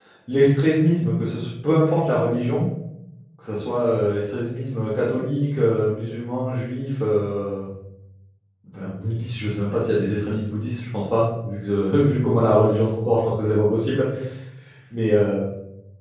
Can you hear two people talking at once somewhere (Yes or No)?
No